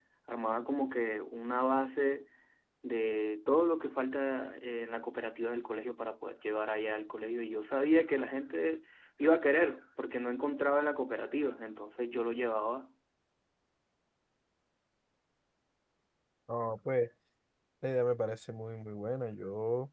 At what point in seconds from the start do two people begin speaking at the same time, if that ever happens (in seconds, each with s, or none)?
none